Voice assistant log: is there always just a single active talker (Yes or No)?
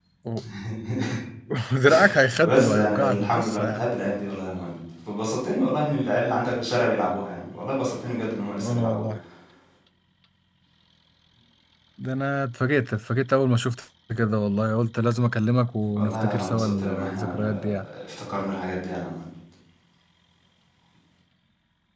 No